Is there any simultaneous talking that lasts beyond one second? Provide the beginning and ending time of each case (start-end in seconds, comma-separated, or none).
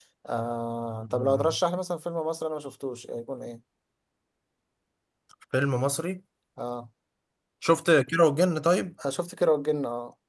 none